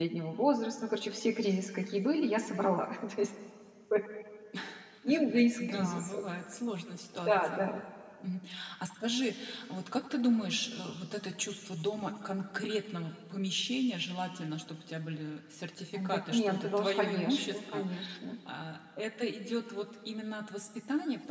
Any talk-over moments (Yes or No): Yes